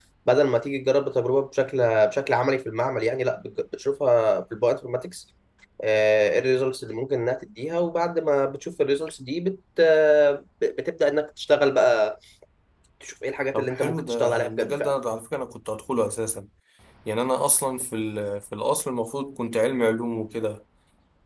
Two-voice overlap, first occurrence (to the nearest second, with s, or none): 14 s